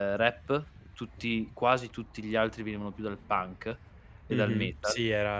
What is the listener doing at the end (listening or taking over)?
taking over